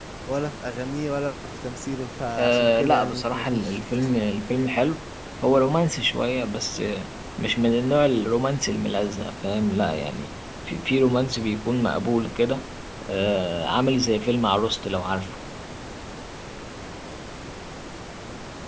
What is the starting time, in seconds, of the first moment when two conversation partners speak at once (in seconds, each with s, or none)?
2.4 s